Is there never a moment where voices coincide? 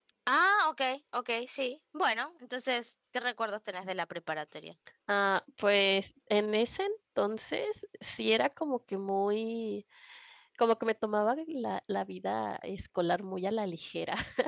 Yes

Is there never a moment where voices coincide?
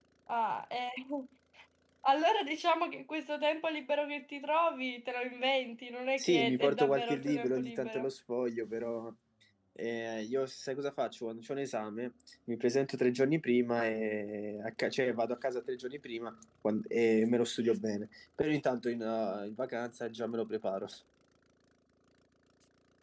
No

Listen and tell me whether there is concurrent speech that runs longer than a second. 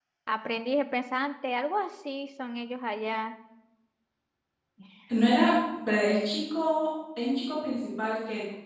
No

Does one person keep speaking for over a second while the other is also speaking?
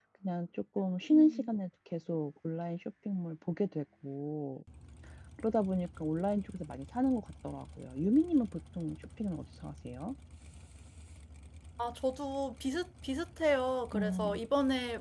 No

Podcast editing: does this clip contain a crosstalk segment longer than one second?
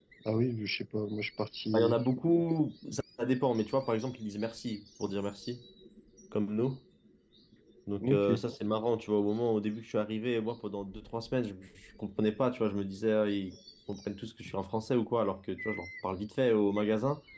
No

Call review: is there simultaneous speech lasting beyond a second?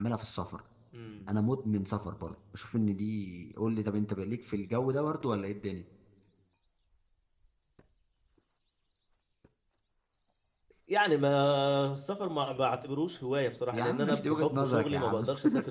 Yes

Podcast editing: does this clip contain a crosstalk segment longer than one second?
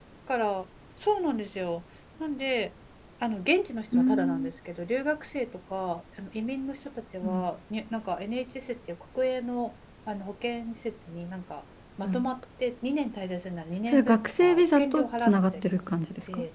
Yes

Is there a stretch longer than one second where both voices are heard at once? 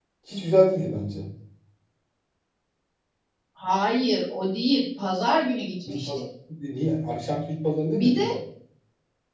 No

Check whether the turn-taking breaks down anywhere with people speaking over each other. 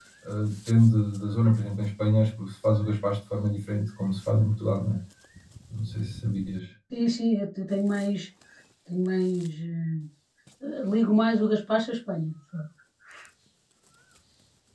No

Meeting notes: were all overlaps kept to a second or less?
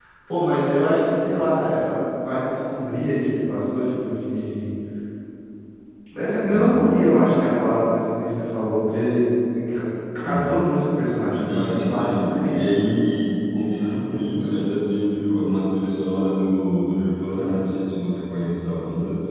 No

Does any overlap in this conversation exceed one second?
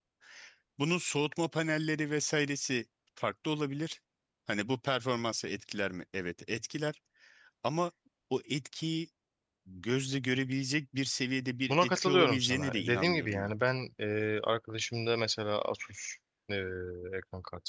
Yes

